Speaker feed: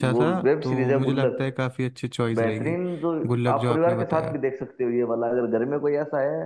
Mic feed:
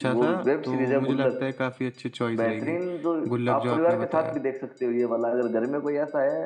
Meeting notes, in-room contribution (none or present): none